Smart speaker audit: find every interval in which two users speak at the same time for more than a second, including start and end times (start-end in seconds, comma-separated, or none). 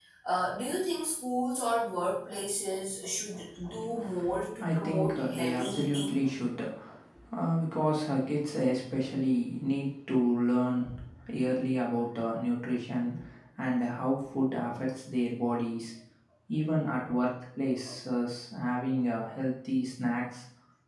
4.6-6.2